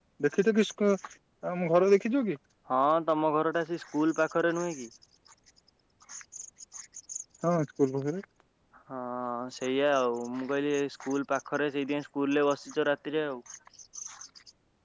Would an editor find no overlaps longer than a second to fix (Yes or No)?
Yes